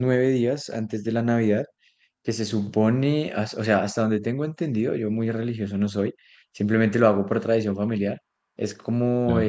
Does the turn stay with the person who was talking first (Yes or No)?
Yes